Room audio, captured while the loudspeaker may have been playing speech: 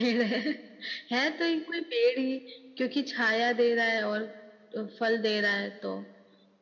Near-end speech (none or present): none